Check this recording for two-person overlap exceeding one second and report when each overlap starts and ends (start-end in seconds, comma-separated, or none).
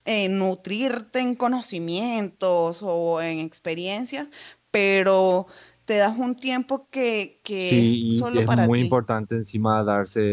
7.6-9.0